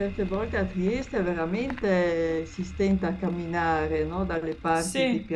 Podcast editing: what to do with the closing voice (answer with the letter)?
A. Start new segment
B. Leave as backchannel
B